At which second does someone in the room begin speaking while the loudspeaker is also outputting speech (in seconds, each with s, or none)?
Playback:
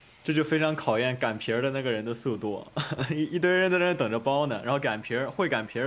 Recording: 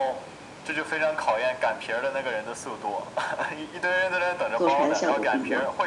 4.5 s